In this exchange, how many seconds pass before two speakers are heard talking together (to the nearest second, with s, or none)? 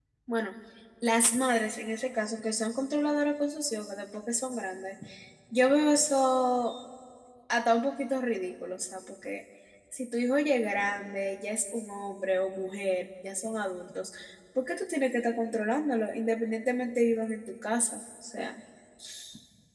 none